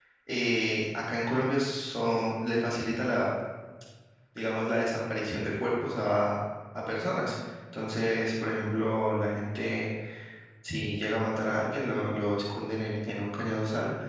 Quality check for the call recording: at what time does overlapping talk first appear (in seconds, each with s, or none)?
none